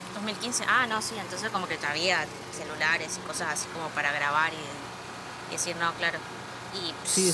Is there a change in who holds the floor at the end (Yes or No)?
Yes